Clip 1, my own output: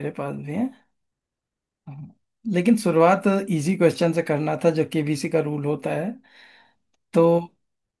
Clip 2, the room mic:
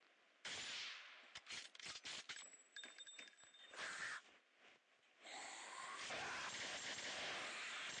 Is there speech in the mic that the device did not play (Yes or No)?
No